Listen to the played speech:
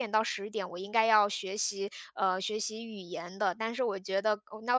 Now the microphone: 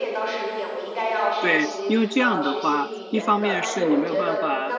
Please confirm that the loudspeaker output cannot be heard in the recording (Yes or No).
No